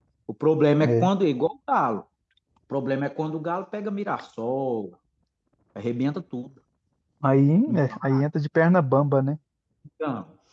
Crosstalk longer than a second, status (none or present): none